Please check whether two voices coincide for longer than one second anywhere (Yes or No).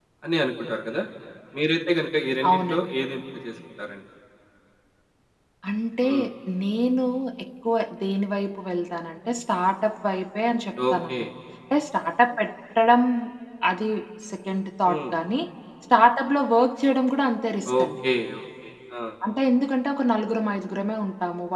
No